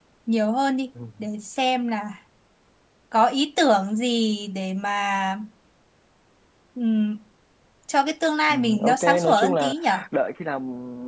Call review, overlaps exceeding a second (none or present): present